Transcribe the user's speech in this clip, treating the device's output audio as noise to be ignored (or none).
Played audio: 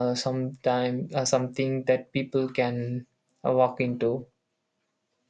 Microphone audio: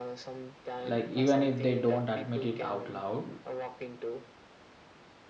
like even if they don't admit it out loud.